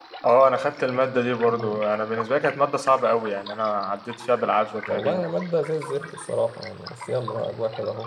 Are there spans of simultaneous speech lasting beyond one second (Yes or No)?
No